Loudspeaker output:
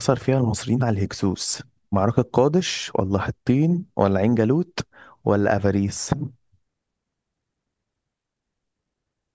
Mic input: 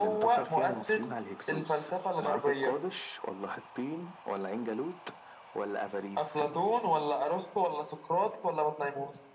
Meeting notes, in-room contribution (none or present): present